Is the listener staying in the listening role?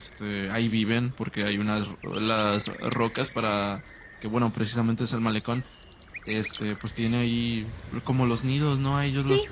Yes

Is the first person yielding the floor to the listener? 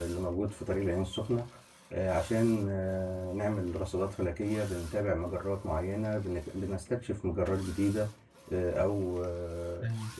Yes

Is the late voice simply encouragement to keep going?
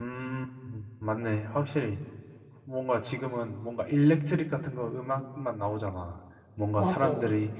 Yes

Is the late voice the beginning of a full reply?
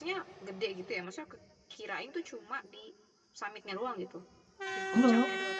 No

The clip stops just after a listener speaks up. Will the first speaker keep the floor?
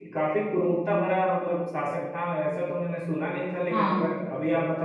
Yes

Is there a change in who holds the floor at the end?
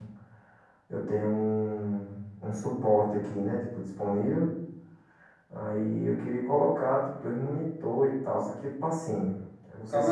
Yes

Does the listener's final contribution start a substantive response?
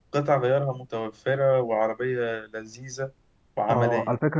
Yes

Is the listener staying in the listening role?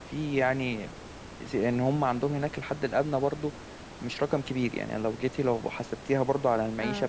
No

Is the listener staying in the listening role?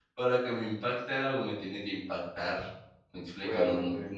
Yes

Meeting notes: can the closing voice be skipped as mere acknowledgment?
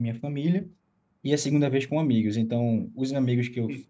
Yes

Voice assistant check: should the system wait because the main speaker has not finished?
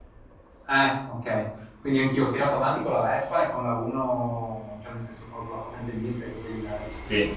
Yes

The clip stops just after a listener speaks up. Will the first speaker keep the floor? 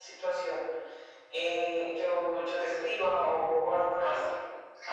No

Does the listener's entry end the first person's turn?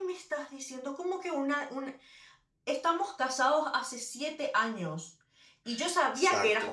No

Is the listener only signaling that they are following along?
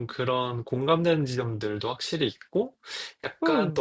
No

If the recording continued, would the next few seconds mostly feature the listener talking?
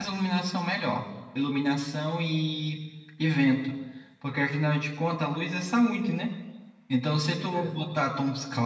No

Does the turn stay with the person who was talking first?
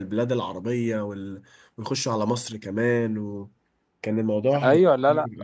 No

